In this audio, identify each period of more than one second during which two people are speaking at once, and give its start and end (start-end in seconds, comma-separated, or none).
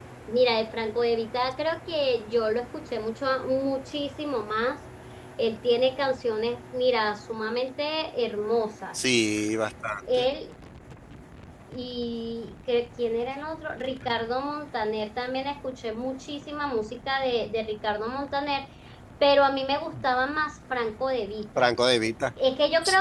none